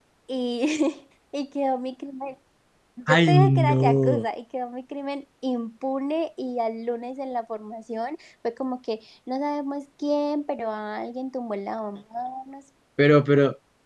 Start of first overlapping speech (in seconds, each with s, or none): 3.1 s